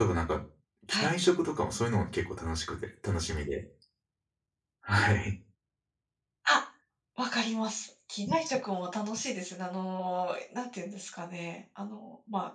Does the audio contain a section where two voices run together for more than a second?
No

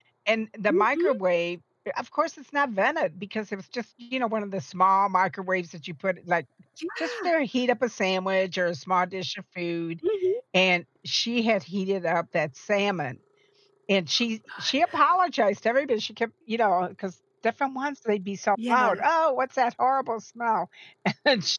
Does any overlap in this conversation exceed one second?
No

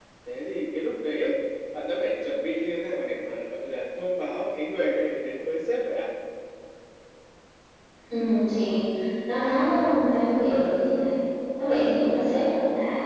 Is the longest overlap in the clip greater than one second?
No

